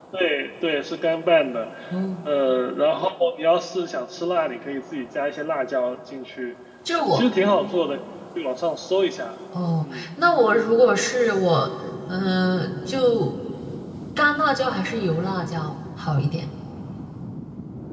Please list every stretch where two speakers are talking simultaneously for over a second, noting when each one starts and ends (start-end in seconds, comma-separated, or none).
none